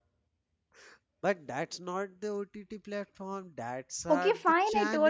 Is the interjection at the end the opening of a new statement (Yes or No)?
Yes